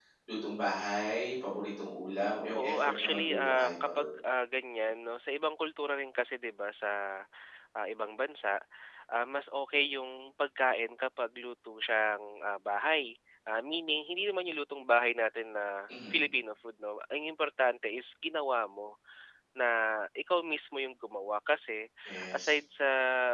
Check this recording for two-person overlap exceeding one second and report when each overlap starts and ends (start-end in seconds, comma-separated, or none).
2.5-4.1